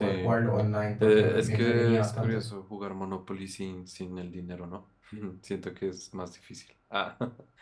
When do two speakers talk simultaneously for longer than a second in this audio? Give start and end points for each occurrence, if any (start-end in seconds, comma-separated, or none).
1.0-2.4